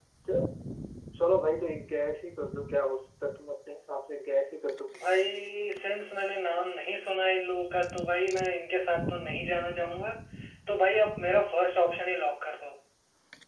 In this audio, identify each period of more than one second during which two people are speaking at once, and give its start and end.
none

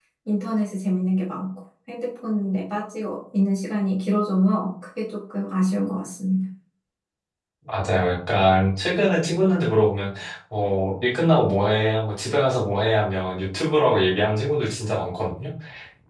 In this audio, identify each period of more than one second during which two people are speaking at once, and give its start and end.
none

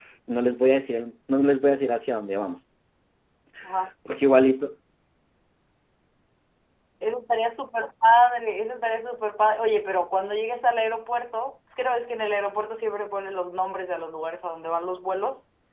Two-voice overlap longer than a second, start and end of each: none

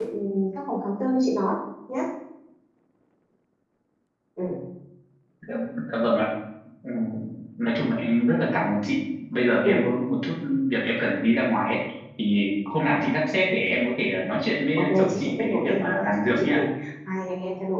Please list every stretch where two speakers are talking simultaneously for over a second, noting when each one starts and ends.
14.8-16.6

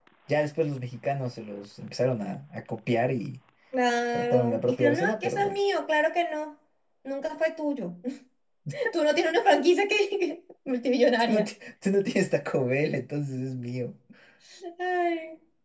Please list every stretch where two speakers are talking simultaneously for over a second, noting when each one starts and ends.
4.1-5.6

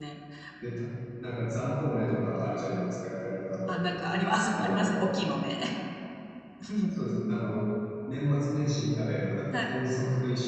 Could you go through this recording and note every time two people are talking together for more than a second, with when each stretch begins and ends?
none

